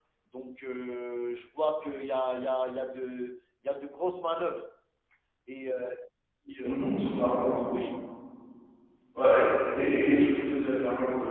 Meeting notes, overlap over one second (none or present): none